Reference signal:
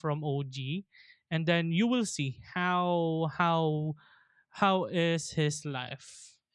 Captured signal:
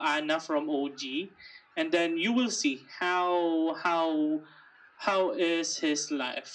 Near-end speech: none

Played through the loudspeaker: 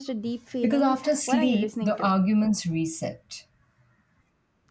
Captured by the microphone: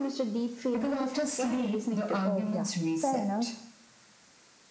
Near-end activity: present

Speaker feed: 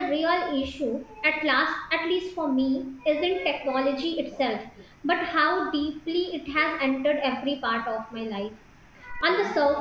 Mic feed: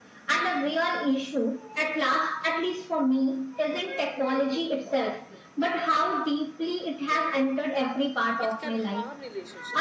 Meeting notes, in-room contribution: present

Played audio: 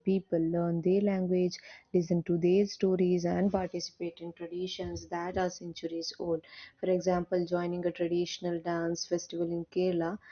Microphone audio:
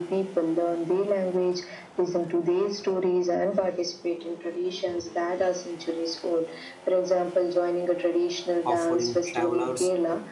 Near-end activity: present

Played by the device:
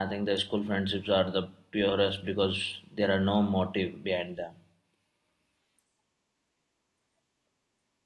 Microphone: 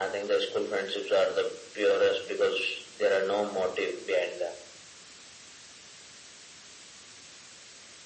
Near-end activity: none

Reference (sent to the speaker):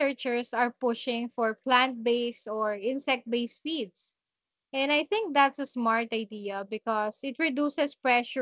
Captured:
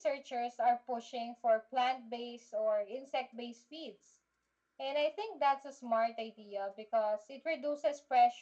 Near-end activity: none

